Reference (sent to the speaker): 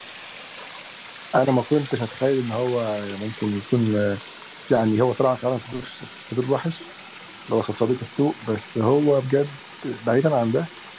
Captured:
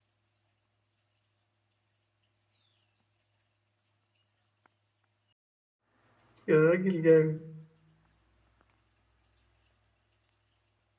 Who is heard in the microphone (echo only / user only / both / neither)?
user only